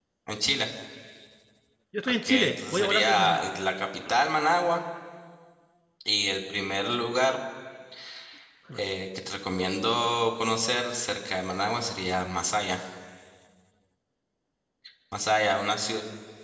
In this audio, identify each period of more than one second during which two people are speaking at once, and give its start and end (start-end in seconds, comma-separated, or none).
2.0-3.4